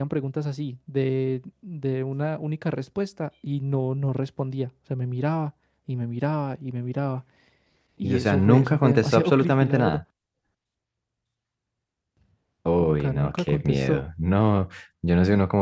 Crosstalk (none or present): present